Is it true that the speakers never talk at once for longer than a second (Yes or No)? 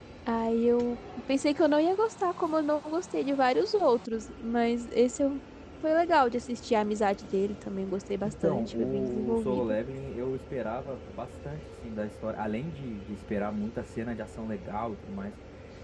No